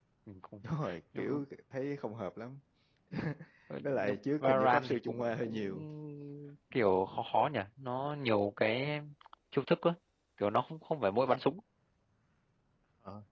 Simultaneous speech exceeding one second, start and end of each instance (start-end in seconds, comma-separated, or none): 3.8-5.8